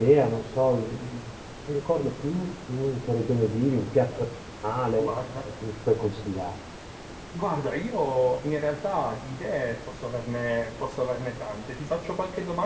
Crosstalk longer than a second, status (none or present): none